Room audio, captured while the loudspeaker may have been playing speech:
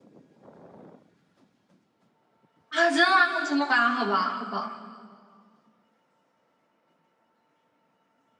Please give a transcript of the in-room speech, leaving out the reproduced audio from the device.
啊，真的吗？真的吧？好吧，好吧，

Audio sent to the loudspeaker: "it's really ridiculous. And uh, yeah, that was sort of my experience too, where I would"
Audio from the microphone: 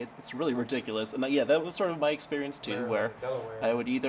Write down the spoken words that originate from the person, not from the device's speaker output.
Maryland and Delaware. And

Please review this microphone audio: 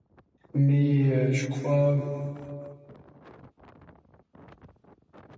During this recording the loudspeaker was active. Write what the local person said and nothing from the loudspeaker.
mais euh, je crois

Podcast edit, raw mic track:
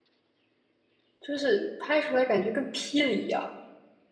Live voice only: 就是拍出来感觉跟霹雳一样。

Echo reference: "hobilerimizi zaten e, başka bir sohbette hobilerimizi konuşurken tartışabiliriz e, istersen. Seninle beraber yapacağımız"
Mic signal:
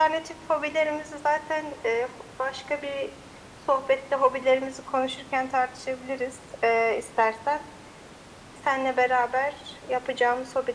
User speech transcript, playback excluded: none

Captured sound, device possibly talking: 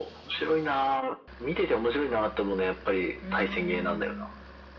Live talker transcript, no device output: うーん。

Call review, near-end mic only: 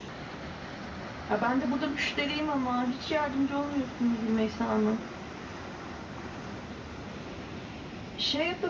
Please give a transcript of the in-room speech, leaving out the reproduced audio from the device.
none

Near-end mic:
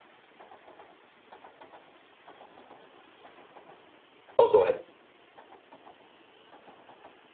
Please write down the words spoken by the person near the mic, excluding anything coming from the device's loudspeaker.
oh, go ahead.

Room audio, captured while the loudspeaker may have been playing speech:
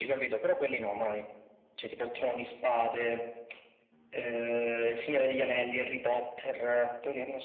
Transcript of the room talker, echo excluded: none

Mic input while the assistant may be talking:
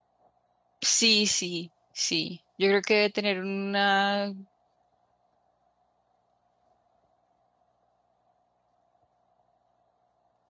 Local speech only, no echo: Sí, sí, sí. Yo creo que debe tener una

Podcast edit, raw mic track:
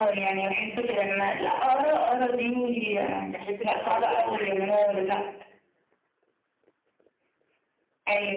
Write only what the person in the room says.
في حتة الآراء دي يعني

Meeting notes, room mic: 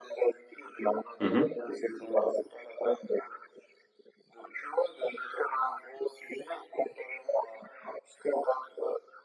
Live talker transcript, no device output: Mhm.

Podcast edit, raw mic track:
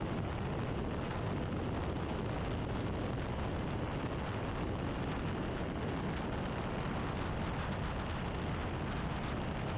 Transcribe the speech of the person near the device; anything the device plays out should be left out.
none

